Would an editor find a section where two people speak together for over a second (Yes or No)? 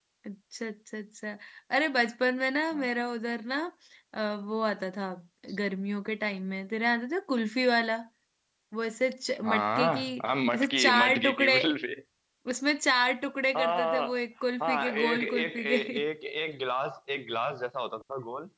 Yes